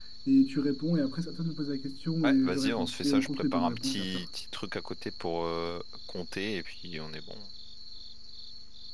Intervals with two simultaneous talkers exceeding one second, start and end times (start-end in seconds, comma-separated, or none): 2.2-4.2